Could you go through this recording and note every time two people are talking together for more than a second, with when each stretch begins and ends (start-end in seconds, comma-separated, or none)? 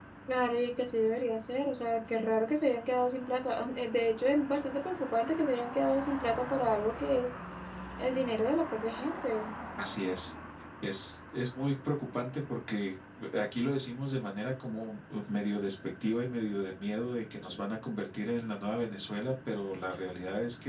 none